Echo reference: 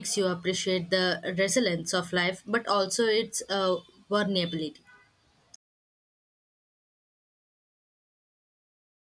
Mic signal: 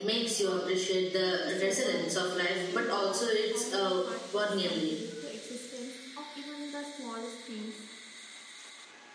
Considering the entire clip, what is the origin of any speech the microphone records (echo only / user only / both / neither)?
both